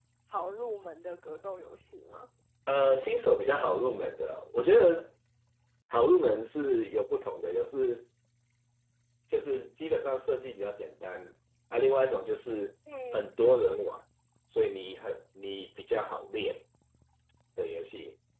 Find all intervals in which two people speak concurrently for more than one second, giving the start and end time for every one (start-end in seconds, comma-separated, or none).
none